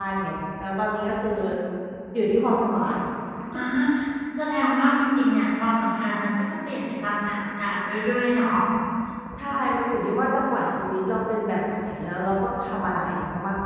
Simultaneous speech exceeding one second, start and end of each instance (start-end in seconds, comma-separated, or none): none